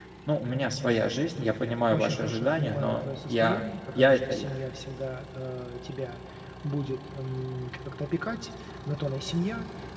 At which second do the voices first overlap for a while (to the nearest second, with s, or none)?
2 s